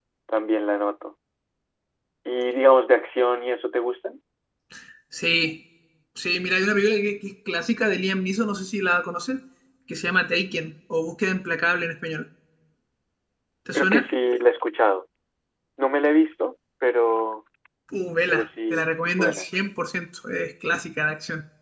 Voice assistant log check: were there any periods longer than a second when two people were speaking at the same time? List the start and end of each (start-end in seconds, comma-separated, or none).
18.3-19.5